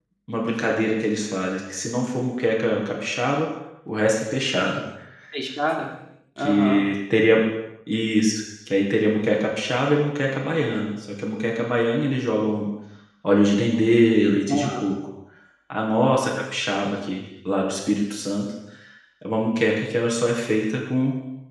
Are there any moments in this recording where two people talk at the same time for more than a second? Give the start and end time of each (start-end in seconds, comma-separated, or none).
none